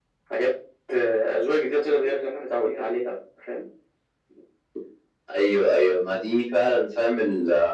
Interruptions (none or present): none